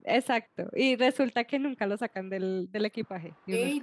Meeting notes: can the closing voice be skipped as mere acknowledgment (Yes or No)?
No